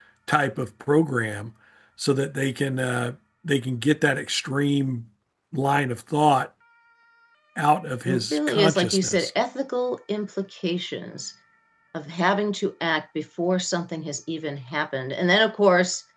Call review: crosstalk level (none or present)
present